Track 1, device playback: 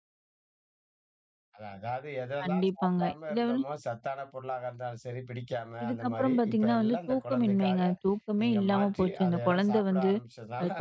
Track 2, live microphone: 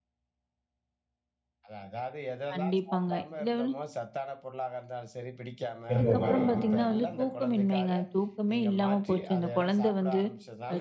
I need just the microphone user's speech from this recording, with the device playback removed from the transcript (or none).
விருப்பமாக.